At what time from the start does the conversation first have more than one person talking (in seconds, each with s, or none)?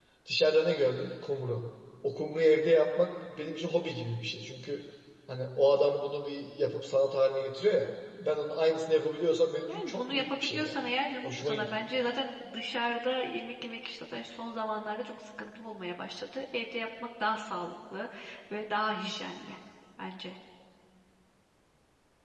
9.7 s